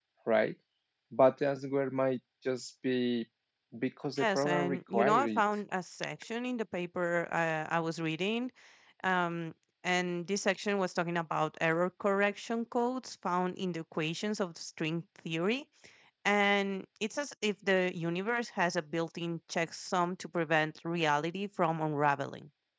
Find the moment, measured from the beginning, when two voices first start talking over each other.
4.2 s

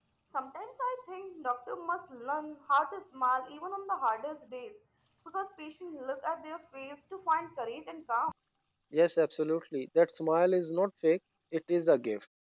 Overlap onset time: none

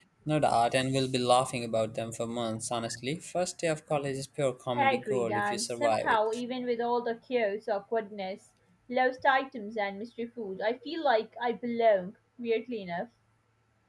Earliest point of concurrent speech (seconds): 4.8 s

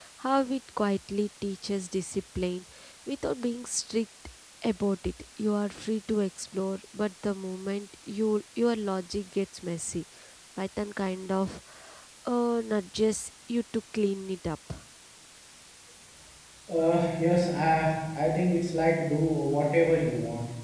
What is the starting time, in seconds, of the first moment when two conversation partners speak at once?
none

